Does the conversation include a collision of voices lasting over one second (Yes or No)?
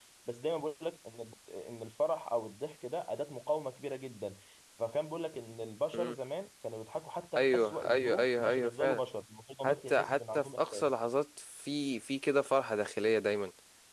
Yes